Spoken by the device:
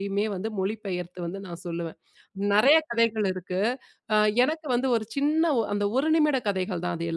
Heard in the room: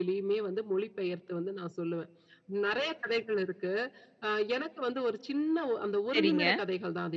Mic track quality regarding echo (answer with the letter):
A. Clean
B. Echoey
B